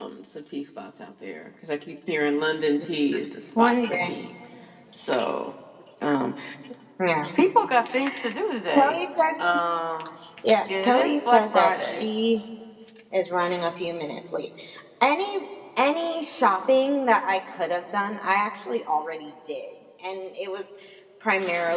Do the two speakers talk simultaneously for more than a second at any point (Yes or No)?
Yes